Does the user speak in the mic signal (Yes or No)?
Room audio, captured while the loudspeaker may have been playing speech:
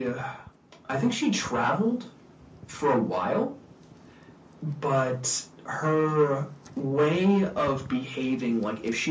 No